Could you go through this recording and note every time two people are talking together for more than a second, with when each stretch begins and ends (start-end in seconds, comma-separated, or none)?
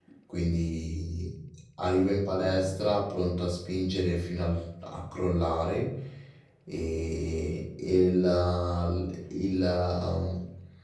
none